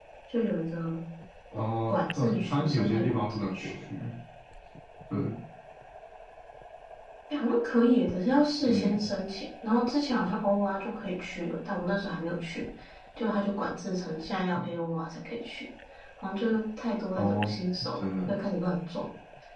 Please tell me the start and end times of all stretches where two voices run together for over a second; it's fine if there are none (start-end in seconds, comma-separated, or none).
1.9-3.7